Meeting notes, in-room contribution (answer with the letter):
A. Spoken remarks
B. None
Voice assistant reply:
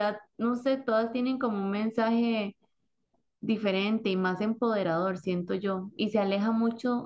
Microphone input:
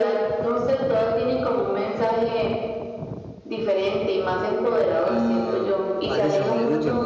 A